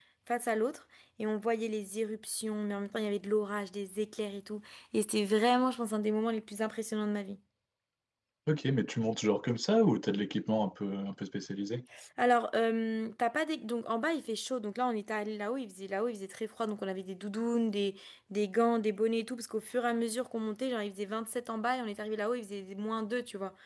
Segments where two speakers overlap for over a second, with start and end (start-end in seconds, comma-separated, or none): none